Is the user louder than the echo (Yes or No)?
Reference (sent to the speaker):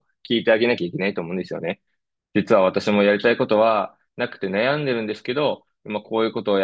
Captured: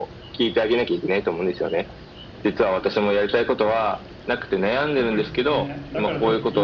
No